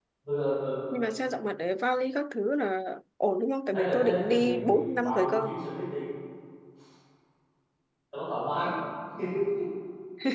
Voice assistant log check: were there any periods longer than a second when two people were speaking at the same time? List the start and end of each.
3.7-5.5

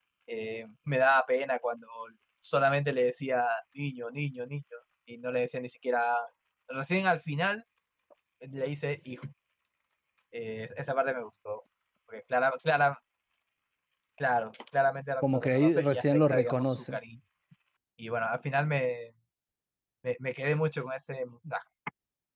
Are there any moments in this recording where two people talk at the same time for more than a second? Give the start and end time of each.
15.3-17.0

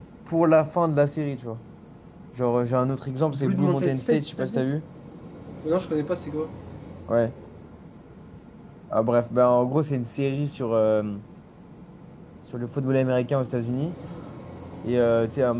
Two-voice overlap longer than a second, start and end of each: 3.3-4.7

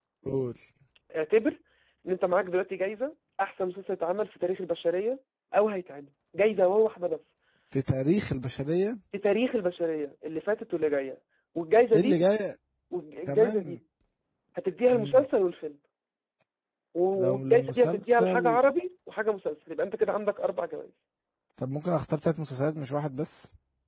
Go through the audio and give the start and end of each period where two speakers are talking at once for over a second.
17.2-18.6

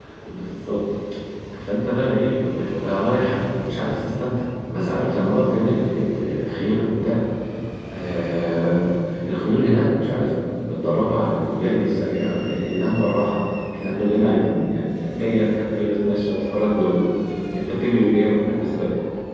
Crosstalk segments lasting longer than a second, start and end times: none

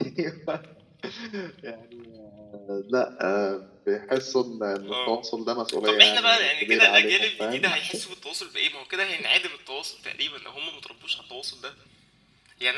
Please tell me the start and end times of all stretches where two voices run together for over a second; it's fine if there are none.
5.8-7.7

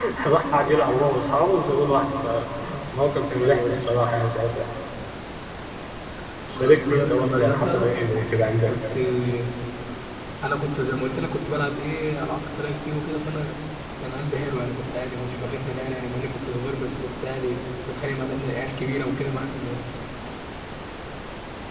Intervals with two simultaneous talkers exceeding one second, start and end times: 6.5-7.9

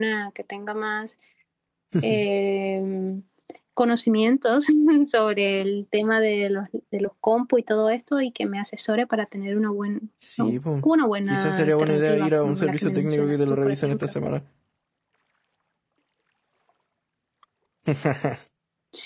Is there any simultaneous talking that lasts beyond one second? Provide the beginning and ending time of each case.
11.3-14.1

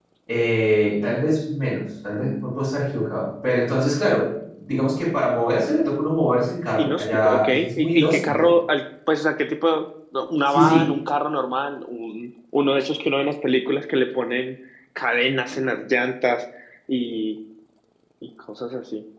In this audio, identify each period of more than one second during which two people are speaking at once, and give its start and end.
6.8-8.5

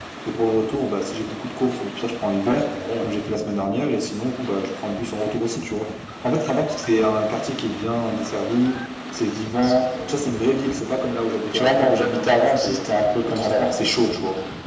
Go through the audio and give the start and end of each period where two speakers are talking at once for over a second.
11.4-12.9

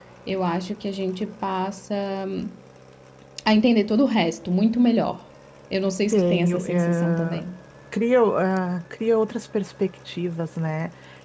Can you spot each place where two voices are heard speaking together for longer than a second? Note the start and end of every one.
6.1-7.4

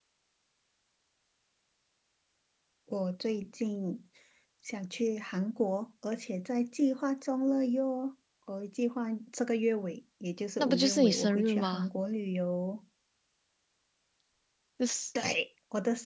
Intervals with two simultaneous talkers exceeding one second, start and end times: 10.6-11.9

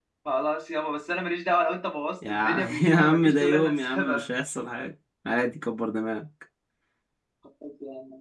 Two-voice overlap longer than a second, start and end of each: 2.3-4.3

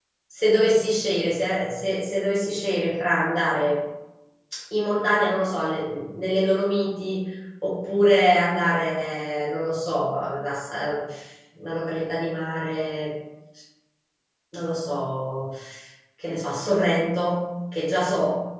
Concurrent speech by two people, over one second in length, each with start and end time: none

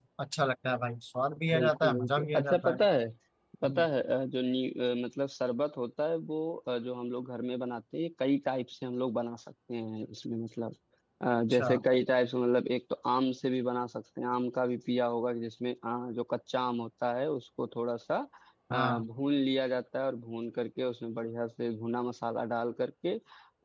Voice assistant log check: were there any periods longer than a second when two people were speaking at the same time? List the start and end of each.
1.5-2.8

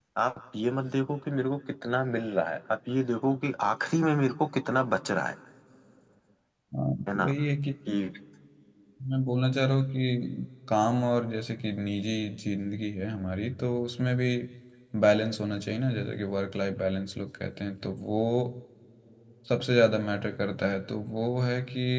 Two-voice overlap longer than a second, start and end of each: none

